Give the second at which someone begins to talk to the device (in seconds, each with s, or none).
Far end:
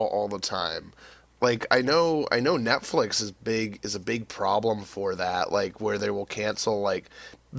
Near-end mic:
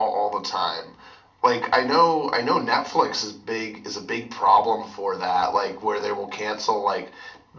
none